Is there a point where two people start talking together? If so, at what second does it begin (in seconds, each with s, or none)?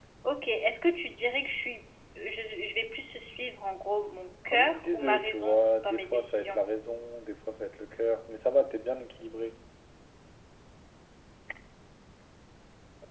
4.5 s